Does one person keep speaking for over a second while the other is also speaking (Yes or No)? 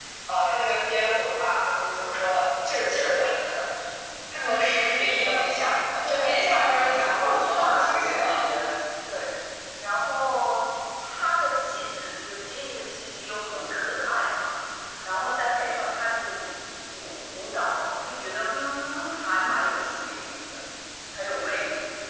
Yes